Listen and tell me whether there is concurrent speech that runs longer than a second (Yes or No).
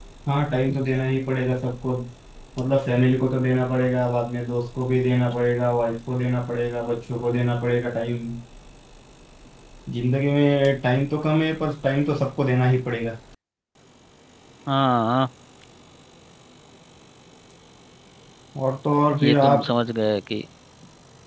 No